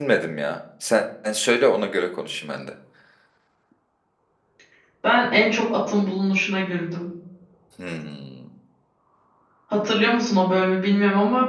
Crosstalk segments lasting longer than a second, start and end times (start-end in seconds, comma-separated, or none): none